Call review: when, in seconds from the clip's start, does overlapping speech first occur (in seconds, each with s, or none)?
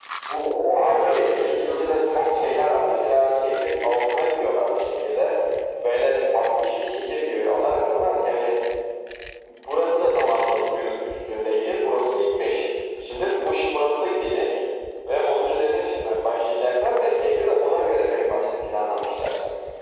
0.8 s